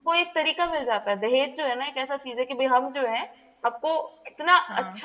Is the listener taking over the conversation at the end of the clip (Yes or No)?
No